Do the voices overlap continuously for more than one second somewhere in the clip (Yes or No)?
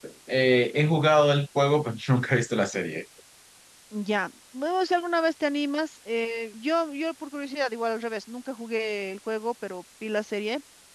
No